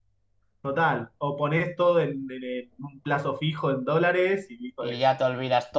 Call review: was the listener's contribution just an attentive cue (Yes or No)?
No